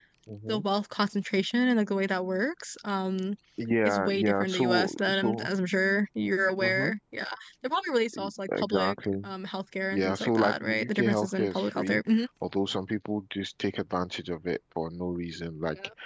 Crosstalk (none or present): present